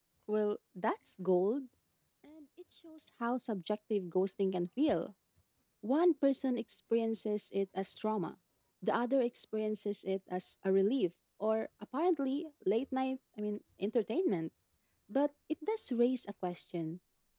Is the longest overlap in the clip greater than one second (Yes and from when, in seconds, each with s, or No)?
No